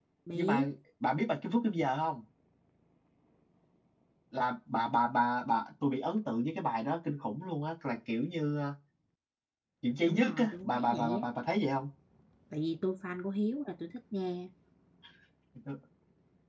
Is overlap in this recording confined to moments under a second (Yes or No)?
No